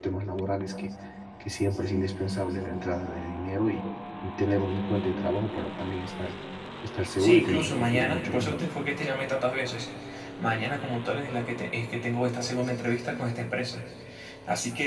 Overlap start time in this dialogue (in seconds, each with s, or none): 7.2 s